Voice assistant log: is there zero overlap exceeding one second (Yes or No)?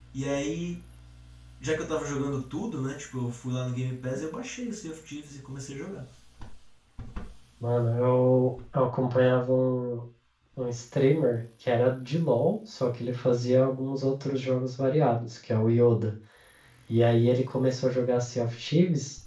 Yes